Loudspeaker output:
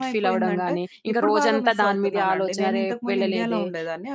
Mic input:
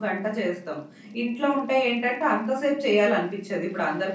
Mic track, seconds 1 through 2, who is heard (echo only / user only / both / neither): user only